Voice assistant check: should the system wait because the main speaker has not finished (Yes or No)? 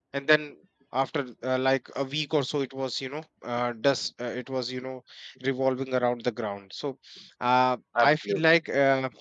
Yes